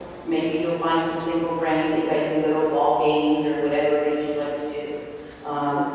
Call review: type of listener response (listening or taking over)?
listening